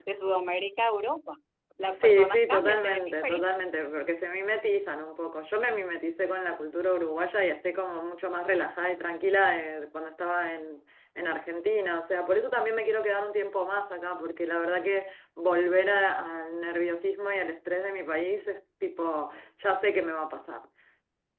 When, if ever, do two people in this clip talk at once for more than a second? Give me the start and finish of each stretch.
1.9-3.5

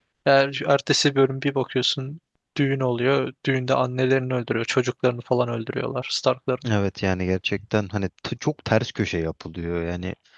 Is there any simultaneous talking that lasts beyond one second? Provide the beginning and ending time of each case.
none

